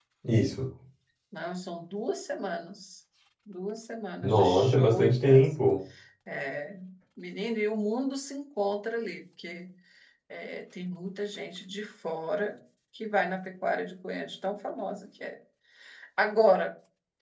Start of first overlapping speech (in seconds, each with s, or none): 4.2 s